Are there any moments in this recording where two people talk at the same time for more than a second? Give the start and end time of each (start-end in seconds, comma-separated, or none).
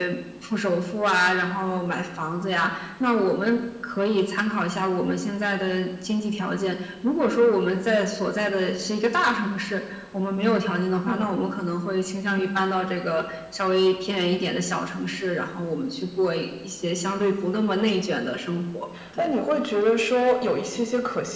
none